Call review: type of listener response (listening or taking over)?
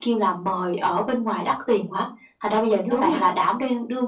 listening